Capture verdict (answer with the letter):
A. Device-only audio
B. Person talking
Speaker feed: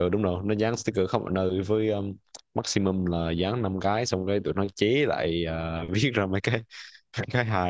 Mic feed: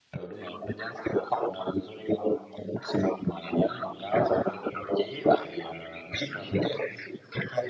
A